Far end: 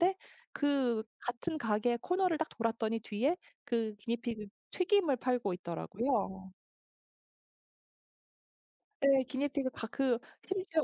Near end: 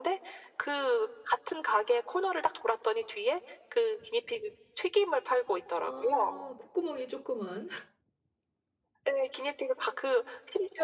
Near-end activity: present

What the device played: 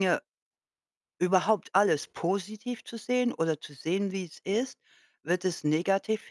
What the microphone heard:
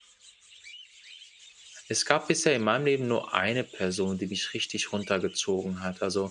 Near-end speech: present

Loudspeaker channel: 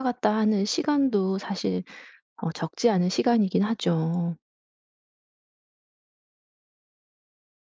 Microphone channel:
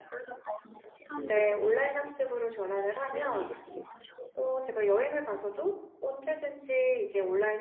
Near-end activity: present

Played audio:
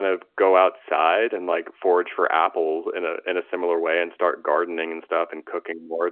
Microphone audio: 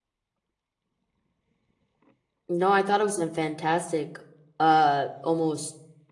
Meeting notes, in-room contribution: present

